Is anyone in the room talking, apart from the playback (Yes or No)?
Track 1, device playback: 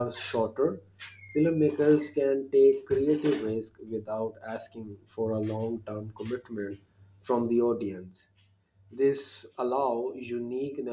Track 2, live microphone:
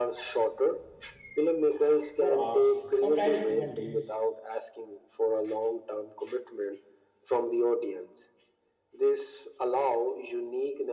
Yes